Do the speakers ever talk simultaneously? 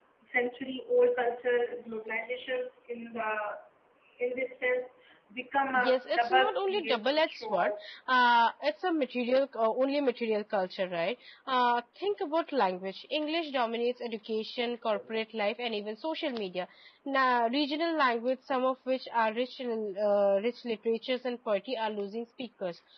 Yes, from 5.7 s

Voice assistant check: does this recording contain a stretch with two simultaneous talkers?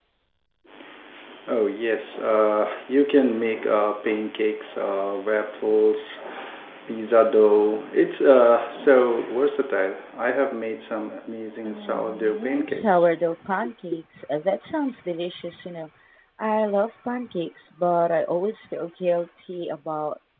Yes, from 11.6 s

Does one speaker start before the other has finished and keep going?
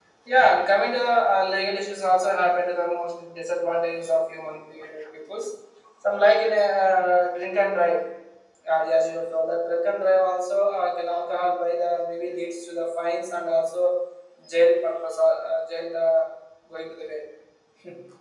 No

